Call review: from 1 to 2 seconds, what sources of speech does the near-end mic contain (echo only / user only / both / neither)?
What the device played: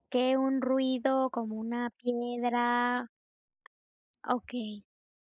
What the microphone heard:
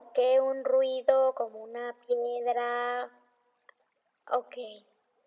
echo only